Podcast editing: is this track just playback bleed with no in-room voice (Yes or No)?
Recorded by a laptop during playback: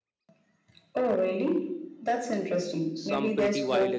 No